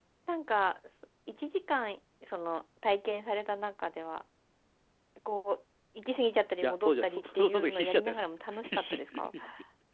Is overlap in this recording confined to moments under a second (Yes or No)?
No